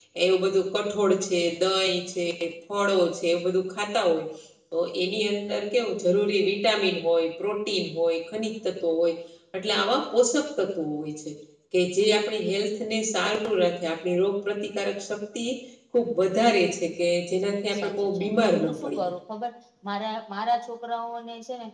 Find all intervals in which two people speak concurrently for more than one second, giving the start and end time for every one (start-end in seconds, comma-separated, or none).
17.7-19.1